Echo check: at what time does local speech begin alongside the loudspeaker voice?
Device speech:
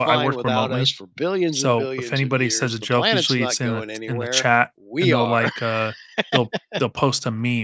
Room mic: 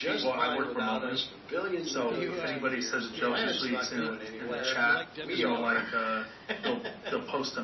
2.1 s

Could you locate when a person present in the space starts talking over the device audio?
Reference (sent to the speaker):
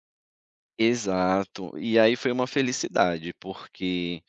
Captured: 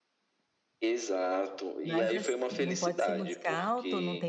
1.8 s

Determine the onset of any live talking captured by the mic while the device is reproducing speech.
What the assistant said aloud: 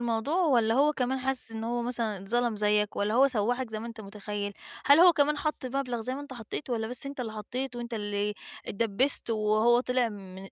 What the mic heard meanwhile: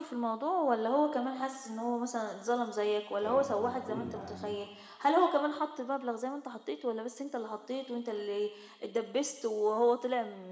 3.2 s

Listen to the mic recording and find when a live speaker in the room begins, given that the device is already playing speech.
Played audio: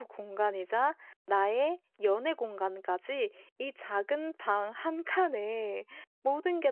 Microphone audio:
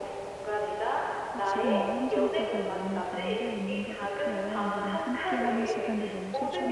1.3 s

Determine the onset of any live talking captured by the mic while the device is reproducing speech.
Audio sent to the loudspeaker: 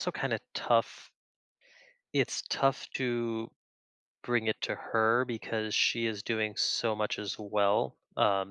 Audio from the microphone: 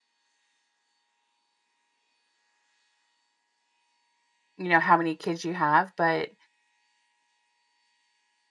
4.6 s

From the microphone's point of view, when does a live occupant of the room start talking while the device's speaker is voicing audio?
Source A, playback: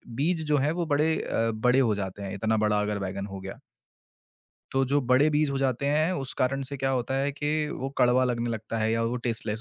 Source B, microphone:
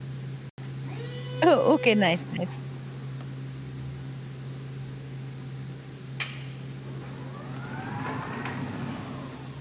1.5 s

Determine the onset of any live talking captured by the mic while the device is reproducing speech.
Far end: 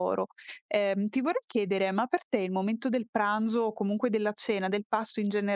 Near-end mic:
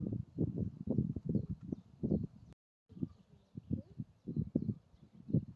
none

